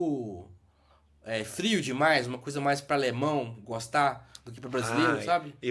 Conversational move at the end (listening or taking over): taking over